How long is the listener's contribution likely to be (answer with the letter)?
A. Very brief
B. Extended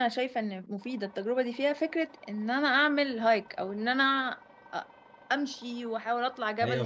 B